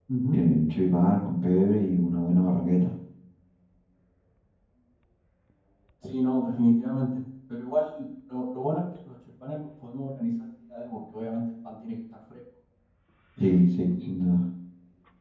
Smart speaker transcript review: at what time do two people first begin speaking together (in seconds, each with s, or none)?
none